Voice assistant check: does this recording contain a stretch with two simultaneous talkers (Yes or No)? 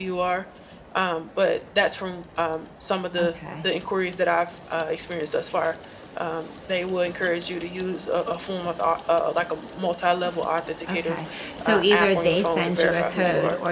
Yes